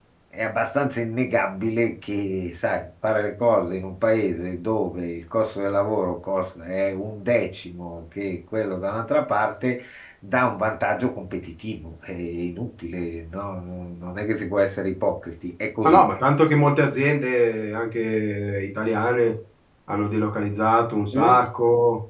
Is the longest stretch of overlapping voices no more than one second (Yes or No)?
Yes